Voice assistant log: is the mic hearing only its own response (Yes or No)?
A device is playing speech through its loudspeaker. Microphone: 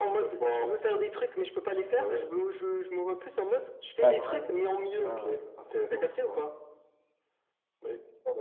No